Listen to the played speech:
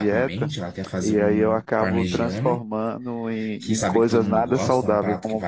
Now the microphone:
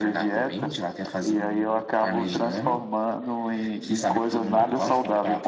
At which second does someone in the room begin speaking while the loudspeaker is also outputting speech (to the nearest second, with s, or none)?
none